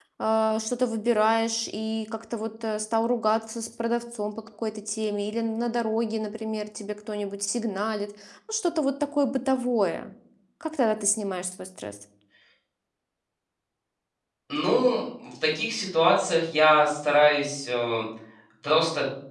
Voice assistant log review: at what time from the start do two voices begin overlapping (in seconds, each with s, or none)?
none